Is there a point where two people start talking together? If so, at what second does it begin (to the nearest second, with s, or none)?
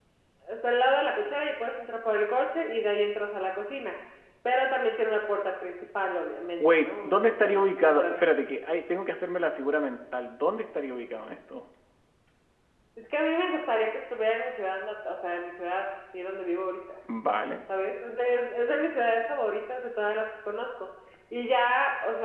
7 s